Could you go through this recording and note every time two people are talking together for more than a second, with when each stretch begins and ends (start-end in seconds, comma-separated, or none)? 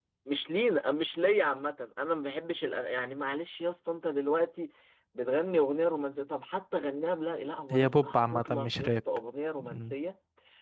7.7-8.9